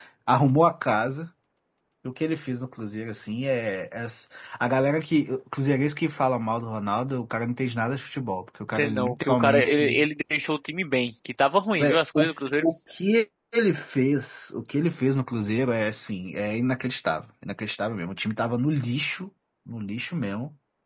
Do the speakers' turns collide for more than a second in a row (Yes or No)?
Yes